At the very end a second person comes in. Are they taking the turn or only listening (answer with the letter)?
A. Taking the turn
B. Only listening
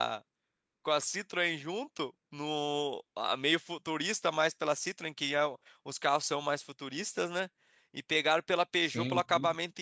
B